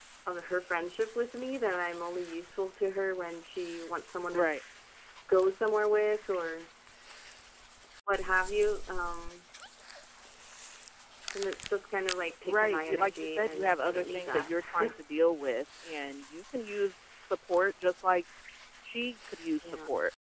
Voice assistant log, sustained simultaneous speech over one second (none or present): present